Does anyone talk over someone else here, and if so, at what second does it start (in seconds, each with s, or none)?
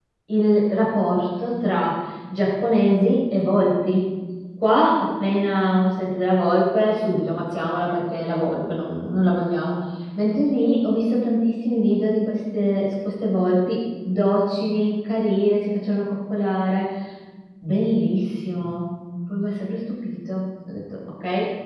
none